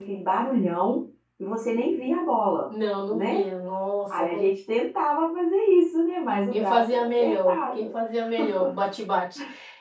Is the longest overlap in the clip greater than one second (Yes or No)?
Yes